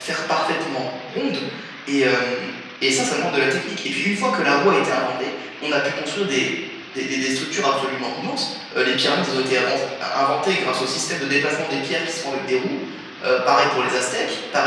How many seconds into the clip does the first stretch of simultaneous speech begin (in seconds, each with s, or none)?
none